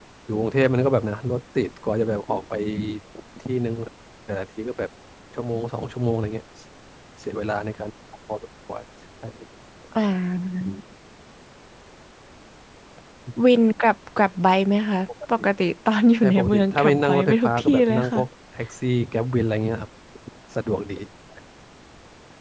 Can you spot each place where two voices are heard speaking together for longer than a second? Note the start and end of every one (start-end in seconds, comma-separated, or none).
16.2-18.2